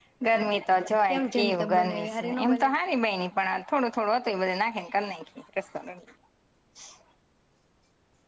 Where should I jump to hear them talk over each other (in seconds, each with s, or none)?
1.1 s